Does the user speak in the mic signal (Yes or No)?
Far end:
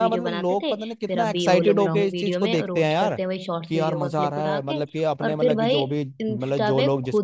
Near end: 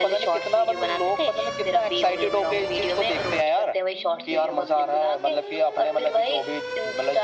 No